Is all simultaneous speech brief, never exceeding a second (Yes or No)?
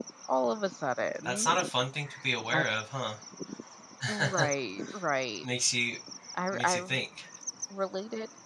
Yes